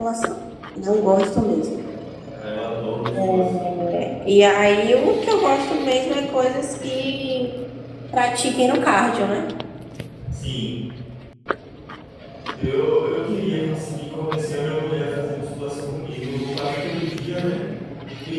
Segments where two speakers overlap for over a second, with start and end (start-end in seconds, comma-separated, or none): none